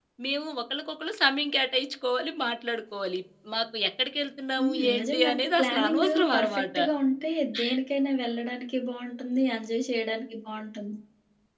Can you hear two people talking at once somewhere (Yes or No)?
Yes